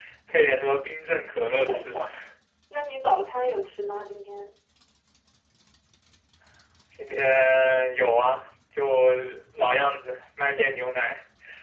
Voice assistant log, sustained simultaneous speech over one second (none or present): none